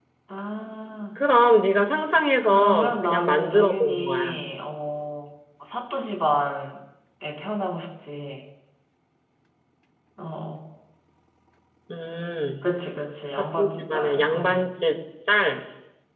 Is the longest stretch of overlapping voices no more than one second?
No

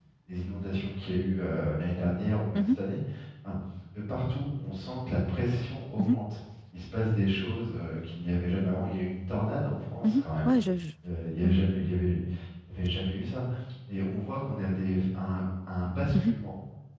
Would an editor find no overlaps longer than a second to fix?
Yes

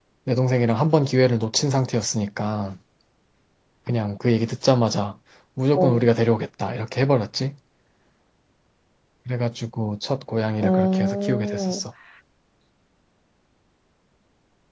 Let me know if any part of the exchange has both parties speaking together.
Yes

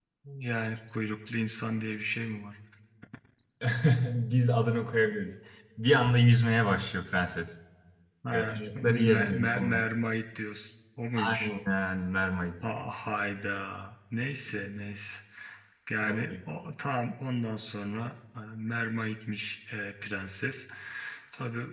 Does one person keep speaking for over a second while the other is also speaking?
Yes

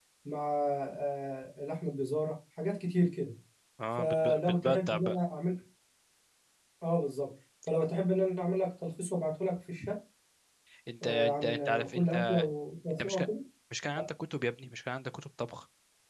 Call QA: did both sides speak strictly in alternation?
No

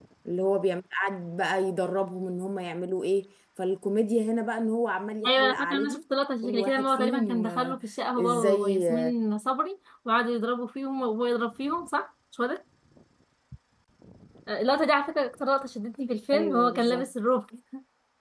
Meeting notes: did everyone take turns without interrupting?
No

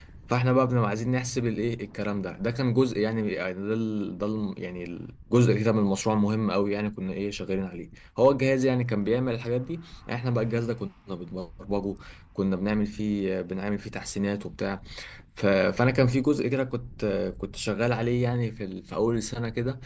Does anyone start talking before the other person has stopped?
No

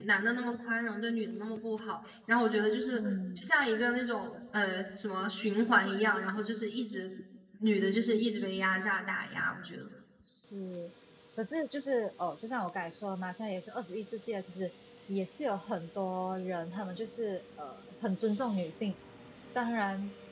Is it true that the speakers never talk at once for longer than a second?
Yes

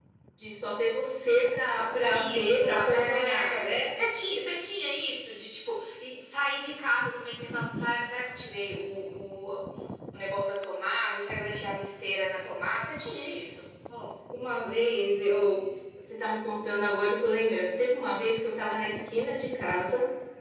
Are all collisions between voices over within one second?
No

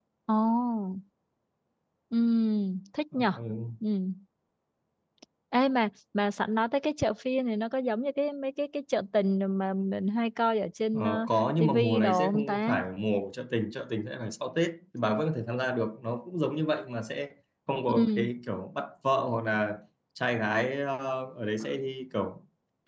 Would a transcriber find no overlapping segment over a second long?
No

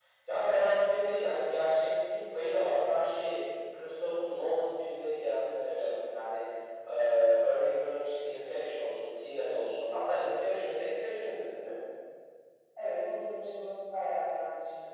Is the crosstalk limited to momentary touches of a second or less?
Yes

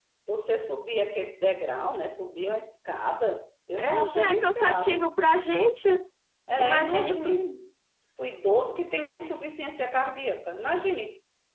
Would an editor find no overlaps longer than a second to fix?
No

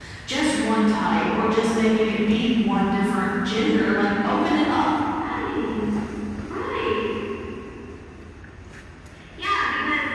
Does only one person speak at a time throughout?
Yes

